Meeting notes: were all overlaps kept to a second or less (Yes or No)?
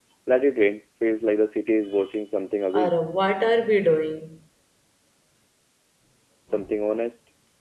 Yes